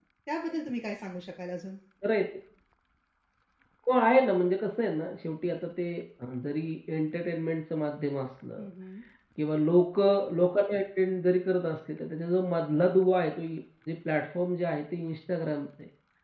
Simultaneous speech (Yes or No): No